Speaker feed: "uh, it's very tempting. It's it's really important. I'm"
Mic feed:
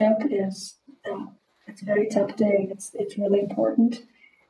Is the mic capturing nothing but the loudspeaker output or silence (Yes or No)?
Yes